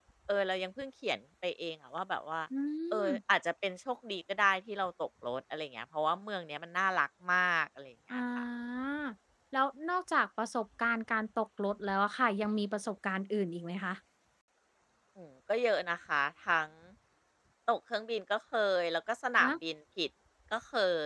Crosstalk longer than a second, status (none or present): none